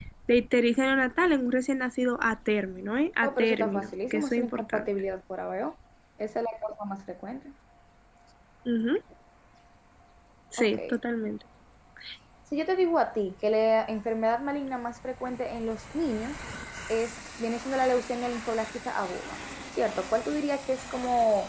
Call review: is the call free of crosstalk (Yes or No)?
No